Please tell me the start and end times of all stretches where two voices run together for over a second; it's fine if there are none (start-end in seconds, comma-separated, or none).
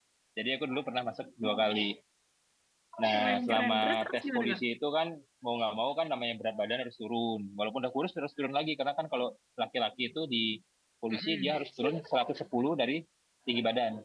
3.1-4.6